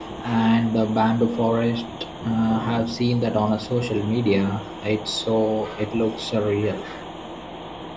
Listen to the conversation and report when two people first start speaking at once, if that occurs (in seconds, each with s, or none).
none